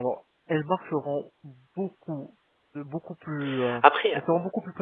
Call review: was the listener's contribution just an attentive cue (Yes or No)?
Yes